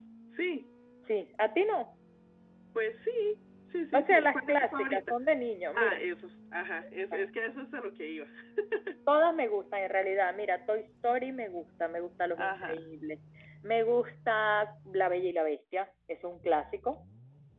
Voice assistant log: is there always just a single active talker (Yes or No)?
No